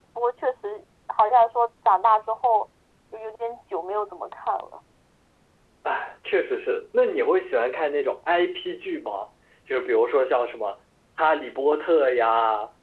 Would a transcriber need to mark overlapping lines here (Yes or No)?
No